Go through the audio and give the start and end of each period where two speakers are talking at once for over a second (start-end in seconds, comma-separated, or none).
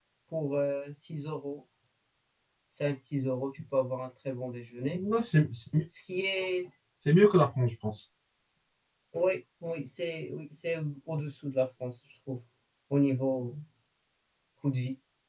none